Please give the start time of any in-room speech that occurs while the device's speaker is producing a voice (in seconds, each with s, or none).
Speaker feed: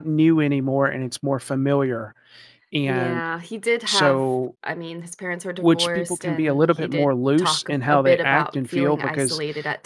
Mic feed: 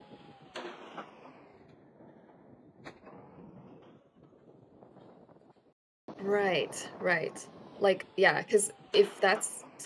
6.2 s